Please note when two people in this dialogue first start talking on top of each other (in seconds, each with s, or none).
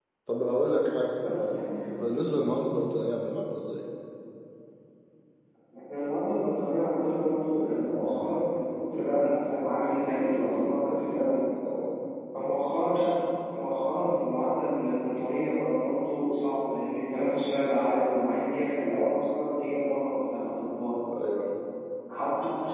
none